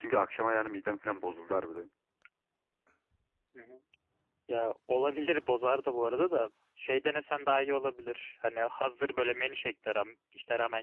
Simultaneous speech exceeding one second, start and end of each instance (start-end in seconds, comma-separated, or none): none